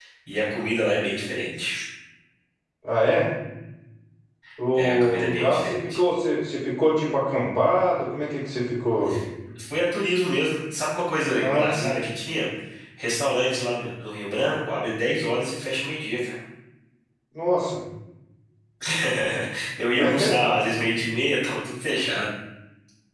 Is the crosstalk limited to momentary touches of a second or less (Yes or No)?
No